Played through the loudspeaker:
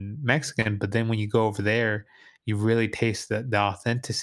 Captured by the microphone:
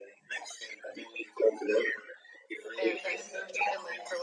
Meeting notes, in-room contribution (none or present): present